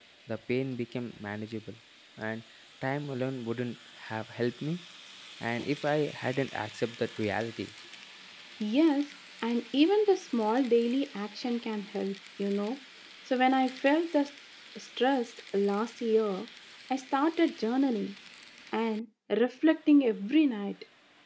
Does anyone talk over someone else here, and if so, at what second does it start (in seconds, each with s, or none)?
none